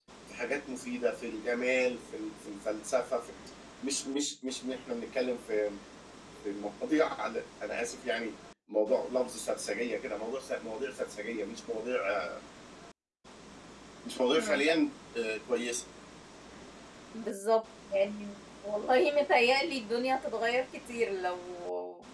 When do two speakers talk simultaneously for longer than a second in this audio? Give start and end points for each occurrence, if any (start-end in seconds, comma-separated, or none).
none